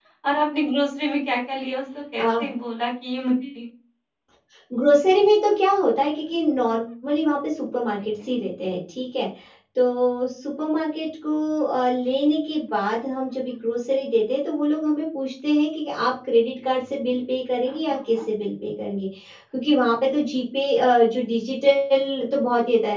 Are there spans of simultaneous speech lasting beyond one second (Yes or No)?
No